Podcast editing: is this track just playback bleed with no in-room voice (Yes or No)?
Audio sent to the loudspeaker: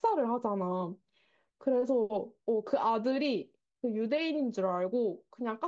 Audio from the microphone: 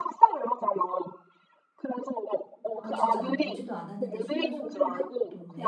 No